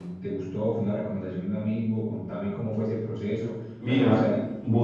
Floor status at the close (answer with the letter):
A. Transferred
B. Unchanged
A